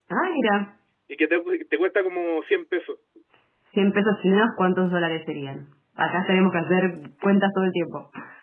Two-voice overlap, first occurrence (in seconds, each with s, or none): none